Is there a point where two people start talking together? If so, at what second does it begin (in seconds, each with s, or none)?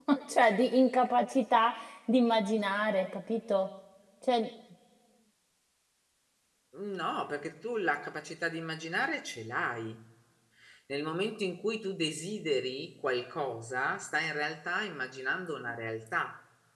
none